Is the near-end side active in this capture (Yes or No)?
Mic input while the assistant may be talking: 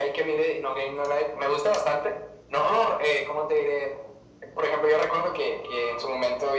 No